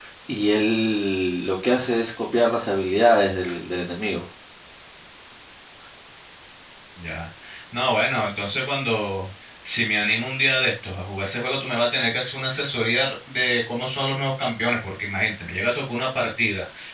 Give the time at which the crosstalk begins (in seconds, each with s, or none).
none